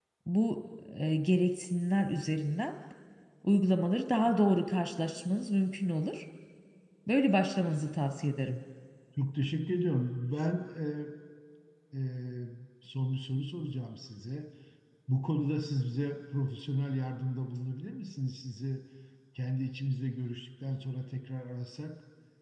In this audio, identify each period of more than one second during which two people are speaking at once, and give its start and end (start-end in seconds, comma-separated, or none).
none